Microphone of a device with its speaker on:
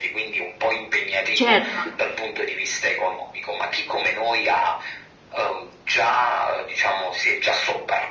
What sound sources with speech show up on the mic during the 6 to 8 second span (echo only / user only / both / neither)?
echo only